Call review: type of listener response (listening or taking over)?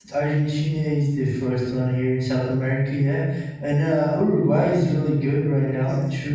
taking over